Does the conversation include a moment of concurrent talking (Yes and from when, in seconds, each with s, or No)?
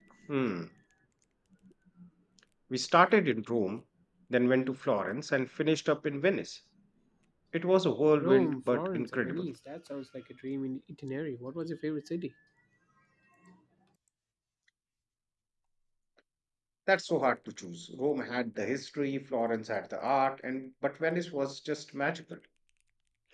Yes, from 8.2 s